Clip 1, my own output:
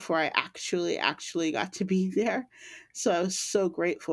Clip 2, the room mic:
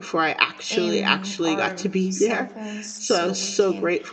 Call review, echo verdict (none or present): present